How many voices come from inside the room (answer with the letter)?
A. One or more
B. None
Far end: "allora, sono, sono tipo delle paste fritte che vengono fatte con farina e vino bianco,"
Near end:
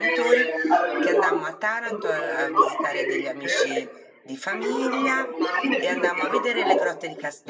A